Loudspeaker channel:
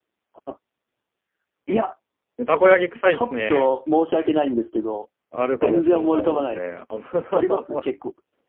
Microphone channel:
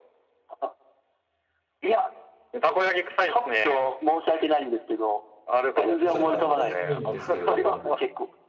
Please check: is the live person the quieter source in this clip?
Yes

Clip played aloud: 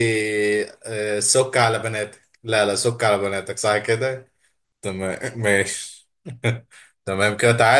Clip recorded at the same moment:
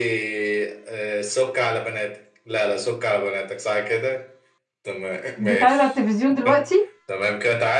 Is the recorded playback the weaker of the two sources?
Yes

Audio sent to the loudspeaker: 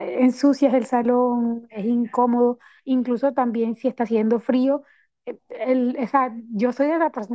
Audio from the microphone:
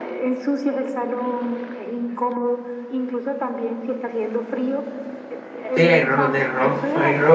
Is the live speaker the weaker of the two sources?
No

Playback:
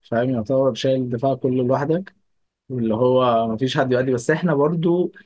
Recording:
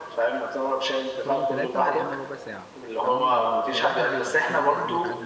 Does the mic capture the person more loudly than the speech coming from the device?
No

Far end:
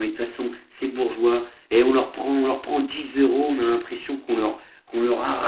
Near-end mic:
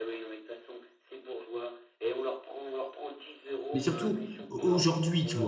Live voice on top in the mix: Yes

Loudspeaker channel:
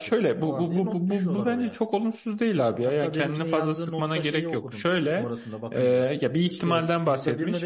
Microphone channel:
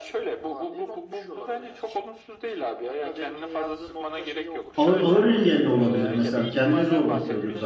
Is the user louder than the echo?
Yes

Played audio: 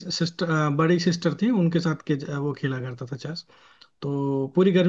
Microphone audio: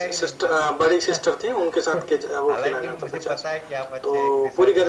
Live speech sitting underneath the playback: Yes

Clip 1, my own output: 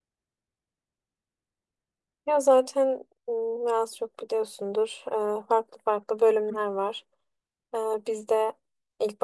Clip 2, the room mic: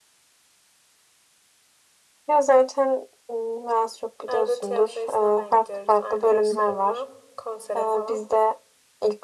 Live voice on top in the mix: No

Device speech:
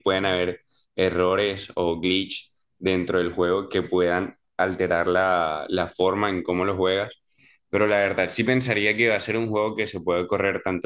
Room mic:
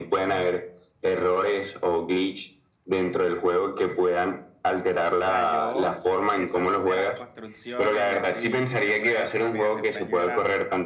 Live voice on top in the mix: No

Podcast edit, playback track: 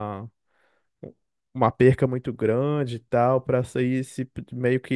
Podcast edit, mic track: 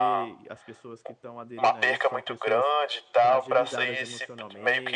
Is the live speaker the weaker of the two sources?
Yes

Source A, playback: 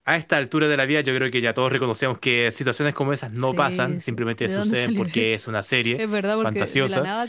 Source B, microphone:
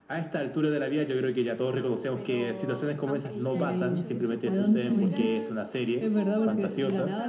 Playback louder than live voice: Yes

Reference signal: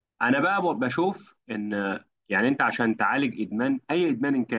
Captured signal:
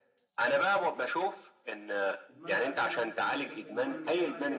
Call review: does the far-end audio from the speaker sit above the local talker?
Yes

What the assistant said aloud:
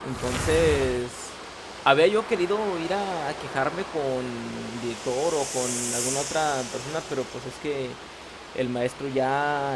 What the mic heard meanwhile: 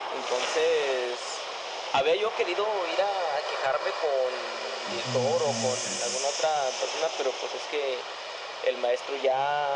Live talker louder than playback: No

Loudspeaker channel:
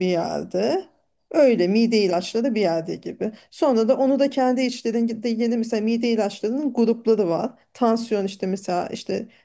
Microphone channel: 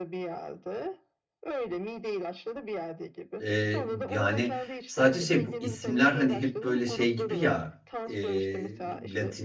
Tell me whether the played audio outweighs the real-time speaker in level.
No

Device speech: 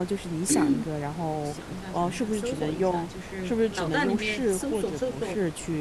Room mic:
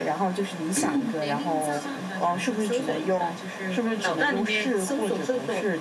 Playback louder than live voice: Yes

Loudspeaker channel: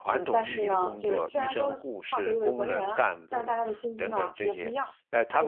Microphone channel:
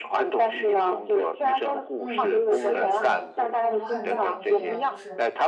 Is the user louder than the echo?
No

